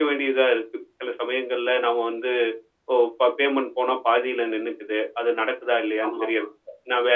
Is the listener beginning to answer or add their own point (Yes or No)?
No